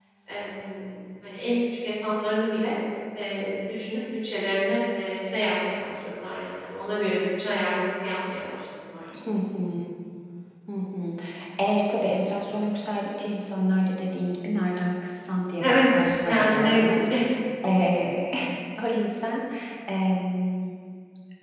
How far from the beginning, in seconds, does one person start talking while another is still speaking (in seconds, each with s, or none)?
15.6 s